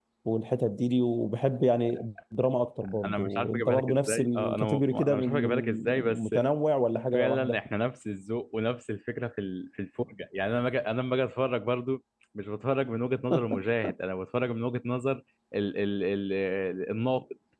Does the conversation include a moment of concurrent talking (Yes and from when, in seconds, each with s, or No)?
Yes, from 3.0 s